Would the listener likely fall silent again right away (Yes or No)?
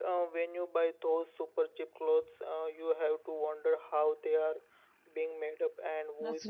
No